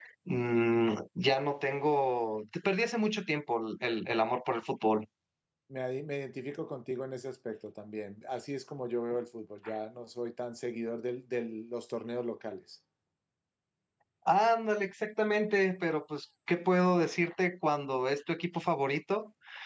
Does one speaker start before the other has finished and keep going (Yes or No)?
No